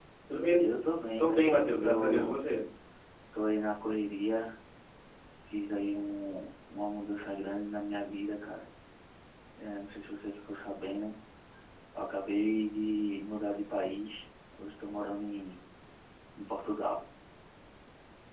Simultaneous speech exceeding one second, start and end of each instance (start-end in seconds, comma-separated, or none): 1.2-2.4